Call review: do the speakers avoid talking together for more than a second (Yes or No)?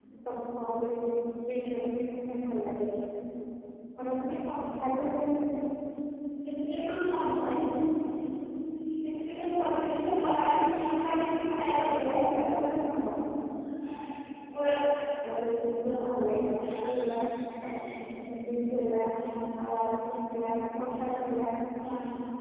No